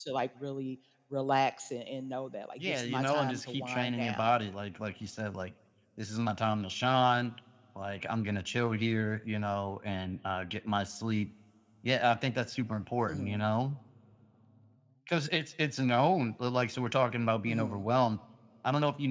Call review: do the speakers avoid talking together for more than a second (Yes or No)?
No